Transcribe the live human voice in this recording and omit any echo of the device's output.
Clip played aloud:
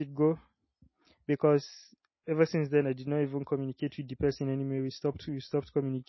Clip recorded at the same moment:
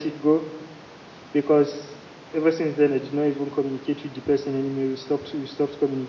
none

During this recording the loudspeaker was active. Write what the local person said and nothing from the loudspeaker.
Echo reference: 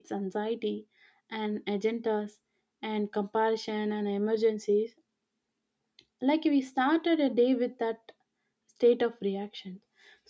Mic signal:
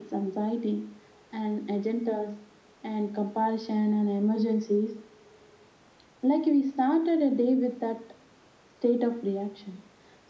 none

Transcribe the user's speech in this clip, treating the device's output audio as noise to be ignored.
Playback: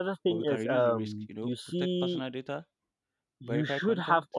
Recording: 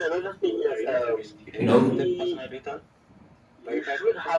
You know,

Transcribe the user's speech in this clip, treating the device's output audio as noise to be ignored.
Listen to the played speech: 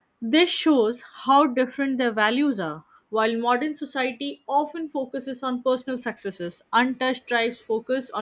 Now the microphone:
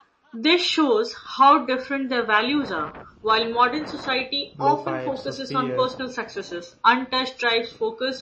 blowpipes or spears

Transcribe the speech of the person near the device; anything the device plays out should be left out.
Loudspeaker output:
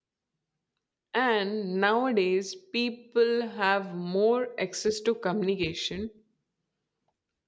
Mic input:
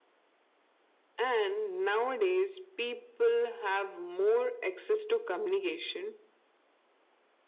none

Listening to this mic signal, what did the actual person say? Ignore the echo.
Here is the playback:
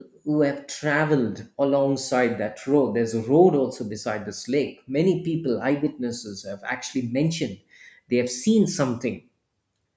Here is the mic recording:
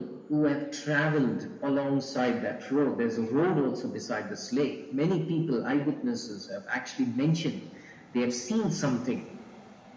none

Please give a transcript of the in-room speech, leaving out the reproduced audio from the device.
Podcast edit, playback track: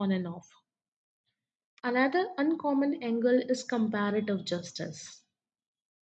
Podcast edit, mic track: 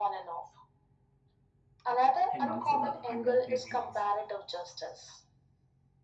and also the underpaid jobs.

